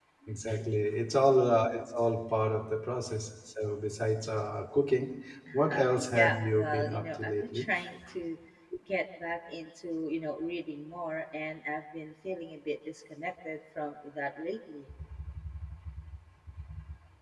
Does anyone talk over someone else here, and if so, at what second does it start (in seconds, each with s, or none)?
5.5 s